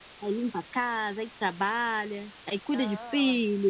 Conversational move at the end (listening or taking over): taking over